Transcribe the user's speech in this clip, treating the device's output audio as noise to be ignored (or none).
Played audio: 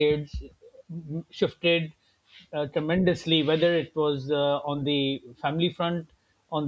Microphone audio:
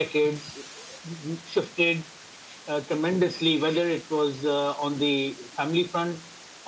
none